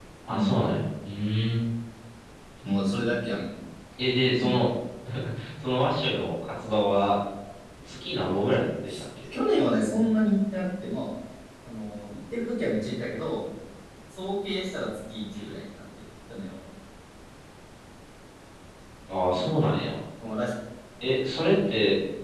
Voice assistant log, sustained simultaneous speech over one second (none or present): none